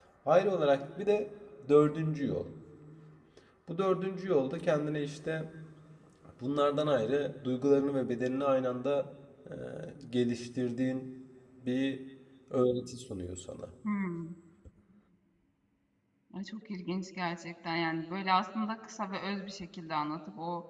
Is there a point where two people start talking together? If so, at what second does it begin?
none

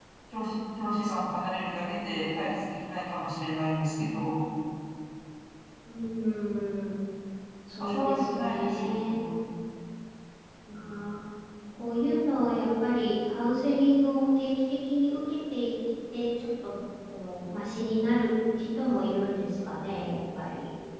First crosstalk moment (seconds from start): 7.8 s

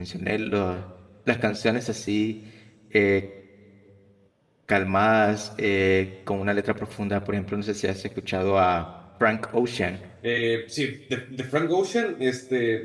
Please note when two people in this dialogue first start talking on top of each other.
none

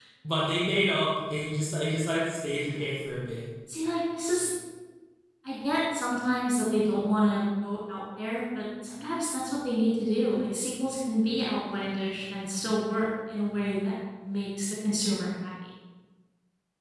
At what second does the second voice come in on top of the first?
none

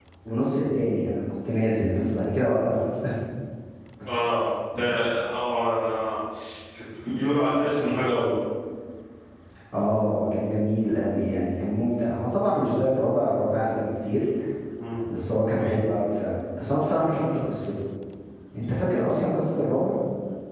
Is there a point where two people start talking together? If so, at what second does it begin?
none

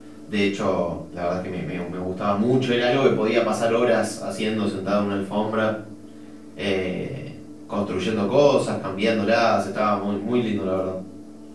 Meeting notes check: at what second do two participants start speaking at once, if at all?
none

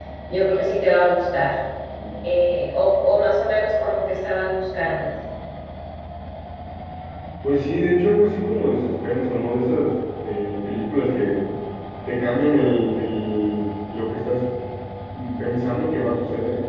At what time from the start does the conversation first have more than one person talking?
none

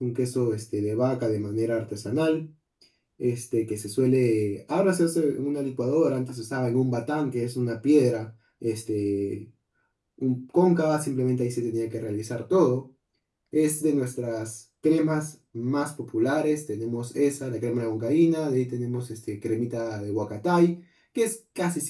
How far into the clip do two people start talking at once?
none

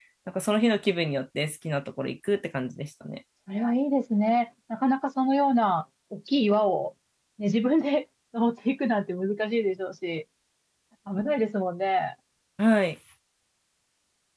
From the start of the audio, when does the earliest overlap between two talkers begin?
none

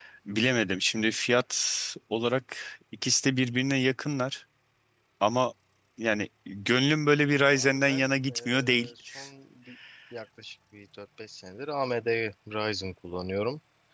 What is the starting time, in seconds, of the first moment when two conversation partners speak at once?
7.4 s

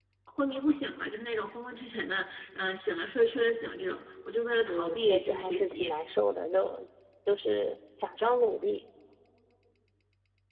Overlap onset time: 4.7 s

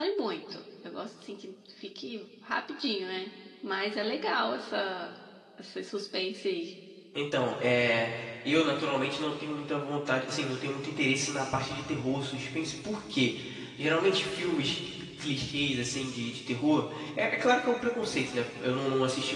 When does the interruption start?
none

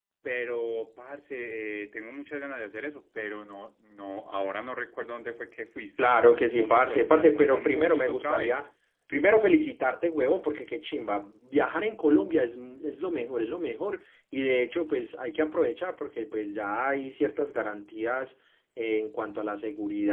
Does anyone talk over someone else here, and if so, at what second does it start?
6.0 s

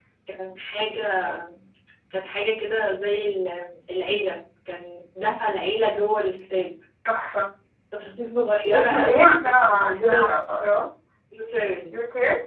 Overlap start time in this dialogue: 8.7 s

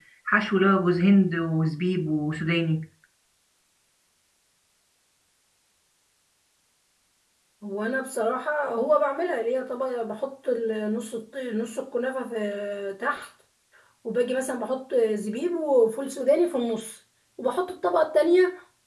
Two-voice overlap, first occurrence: none

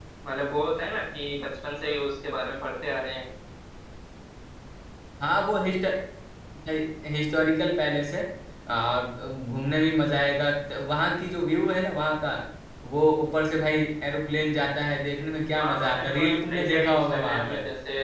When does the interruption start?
15.6 s

